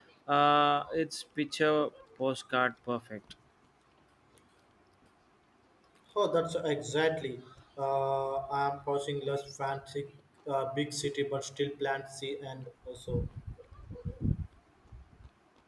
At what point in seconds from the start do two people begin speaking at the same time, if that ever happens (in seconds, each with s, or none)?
none